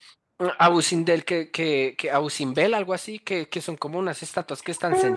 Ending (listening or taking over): taking over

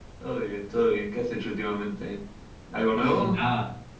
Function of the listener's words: taking over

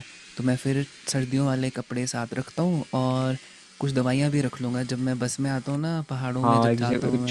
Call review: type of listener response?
taking over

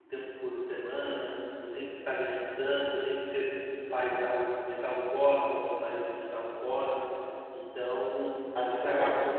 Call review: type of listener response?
listening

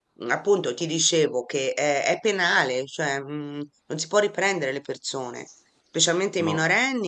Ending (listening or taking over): listening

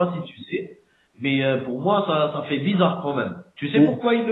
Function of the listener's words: listening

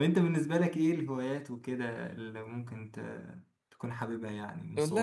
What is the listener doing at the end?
taking over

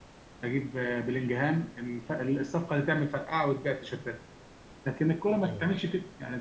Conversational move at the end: listening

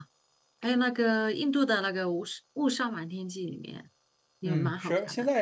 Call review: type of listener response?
taking over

